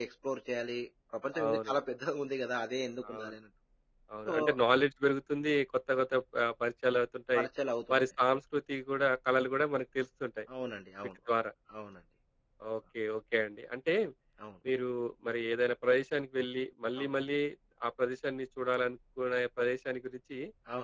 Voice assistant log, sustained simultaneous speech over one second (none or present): none